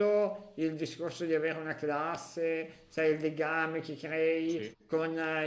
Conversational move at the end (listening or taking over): listening